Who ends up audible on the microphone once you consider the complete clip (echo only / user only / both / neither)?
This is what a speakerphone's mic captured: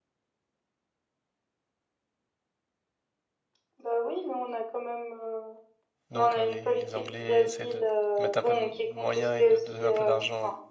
both